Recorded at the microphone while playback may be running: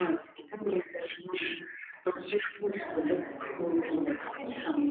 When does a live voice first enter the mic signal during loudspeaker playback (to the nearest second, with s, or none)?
3 s